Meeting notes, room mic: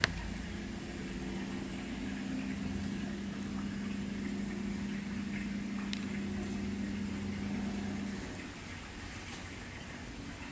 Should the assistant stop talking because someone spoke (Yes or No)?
No